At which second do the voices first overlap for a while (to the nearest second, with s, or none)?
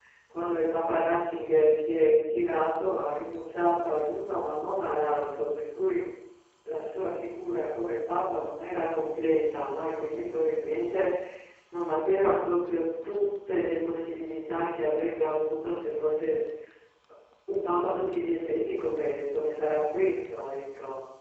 none